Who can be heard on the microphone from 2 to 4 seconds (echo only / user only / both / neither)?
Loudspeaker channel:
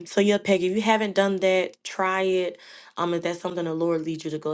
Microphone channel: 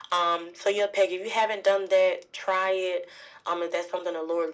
echo only